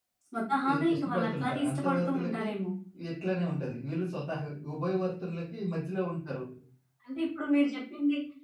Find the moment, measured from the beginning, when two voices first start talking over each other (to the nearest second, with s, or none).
1 s